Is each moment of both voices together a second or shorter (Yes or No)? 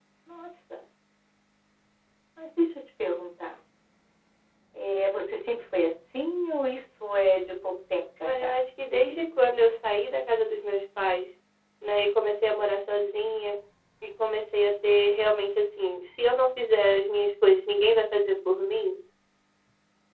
Yes